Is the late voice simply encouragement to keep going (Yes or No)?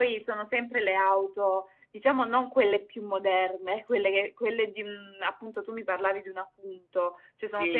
No